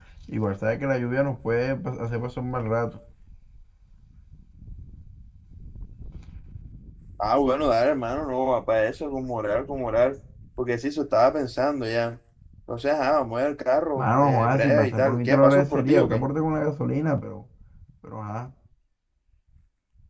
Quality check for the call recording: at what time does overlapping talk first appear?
14.0 s

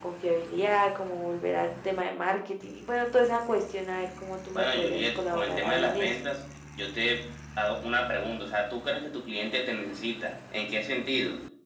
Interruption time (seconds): 4.5 s

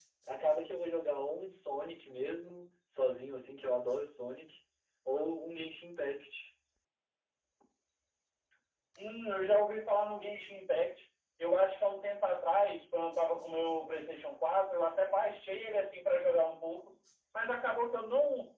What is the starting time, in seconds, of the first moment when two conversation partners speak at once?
none

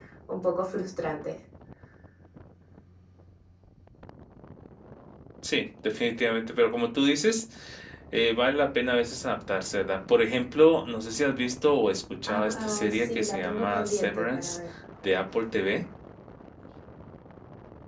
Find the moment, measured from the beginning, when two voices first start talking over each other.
12.3 s

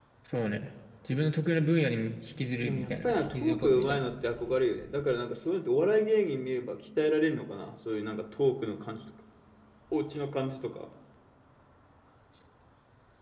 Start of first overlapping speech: 2.6 s

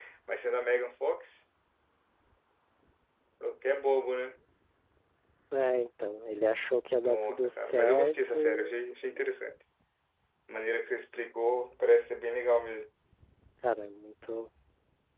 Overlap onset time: 7.0 s

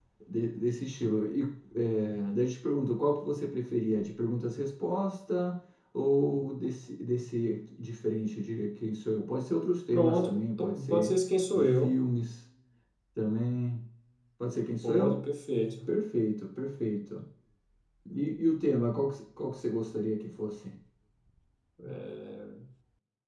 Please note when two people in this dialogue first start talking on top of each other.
9.9 s

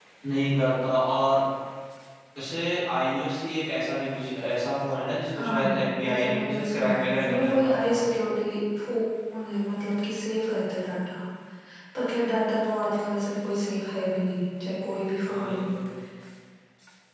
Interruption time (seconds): 5.4 s

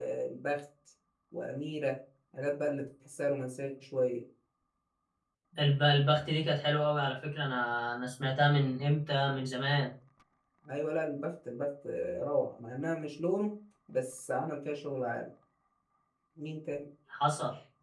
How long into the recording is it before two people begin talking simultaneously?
none

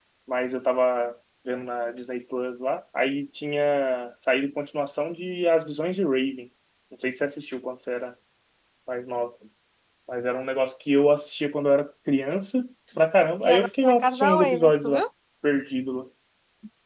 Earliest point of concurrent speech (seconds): 13.4 s

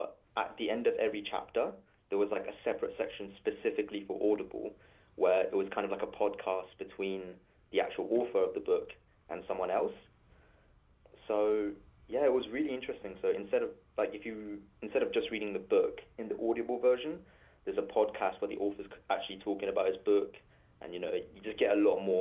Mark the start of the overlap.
none

